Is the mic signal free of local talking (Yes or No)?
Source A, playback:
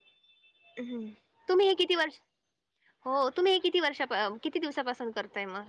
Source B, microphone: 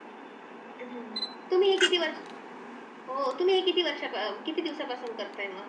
Yes